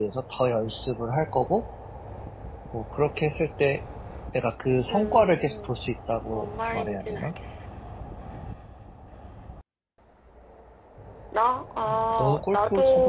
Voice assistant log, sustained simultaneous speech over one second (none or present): present